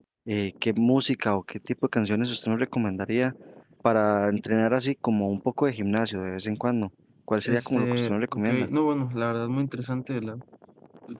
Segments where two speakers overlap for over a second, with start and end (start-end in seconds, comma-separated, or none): 7.5-8.7